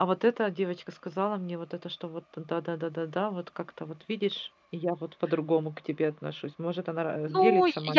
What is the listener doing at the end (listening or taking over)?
taking over